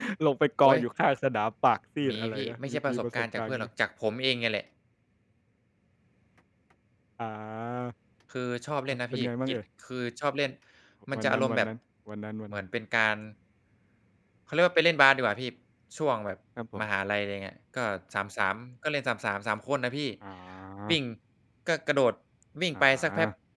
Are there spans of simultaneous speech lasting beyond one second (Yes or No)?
Yes